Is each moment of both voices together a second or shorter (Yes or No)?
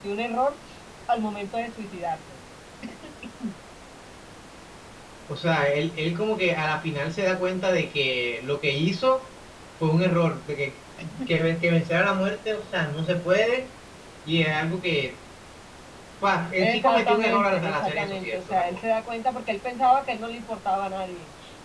No